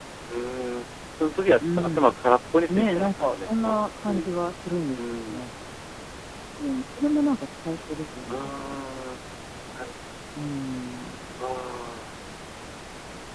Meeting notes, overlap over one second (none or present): present